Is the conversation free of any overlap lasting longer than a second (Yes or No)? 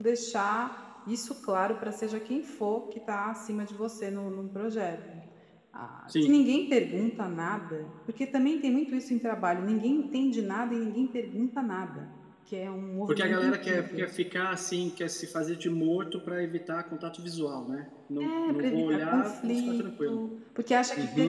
No